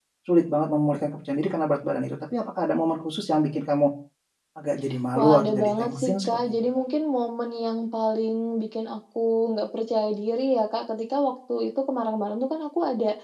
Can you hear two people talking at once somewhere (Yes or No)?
Yes